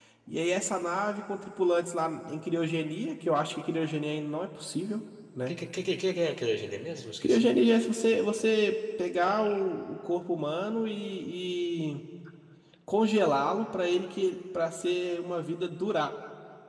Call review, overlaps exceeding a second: none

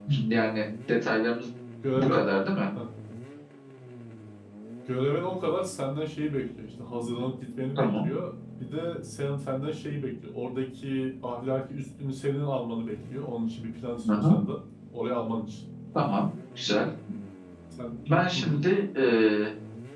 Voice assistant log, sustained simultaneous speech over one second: none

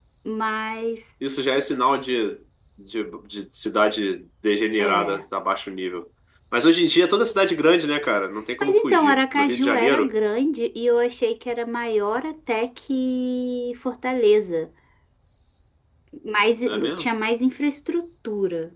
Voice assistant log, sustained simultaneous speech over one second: present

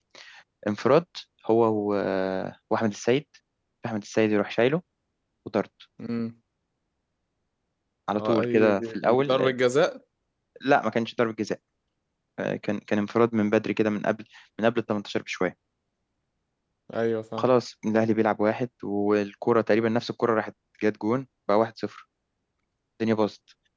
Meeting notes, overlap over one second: present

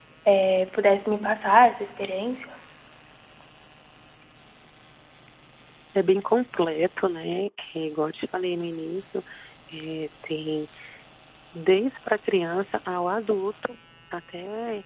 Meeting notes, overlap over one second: none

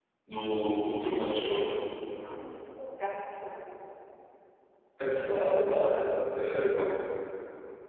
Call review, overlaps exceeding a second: none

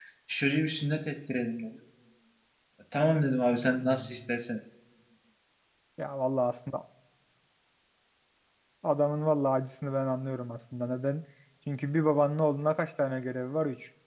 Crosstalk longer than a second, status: none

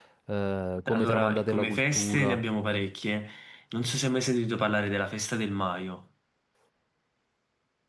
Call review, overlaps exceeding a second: present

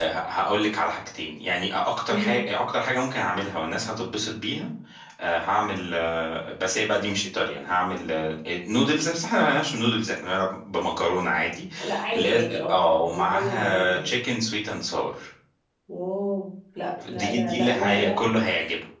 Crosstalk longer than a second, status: present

